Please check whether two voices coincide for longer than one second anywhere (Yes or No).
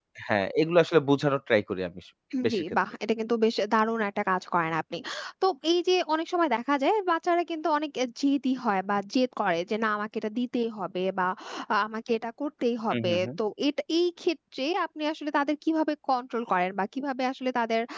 No